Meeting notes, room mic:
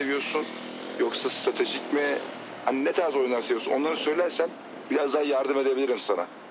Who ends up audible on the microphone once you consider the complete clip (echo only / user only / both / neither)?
echo only